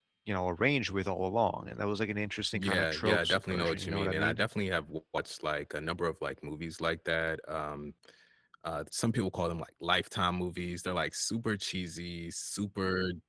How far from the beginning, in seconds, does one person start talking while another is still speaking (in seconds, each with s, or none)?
2.5 s